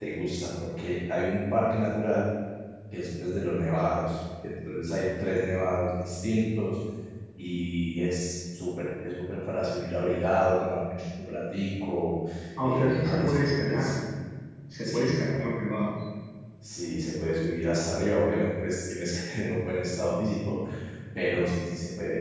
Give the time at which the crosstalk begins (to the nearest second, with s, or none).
13 s